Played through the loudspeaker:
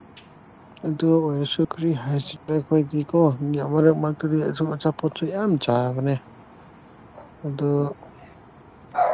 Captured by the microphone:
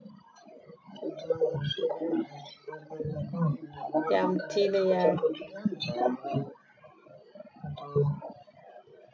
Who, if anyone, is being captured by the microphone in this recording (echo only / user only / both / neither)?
both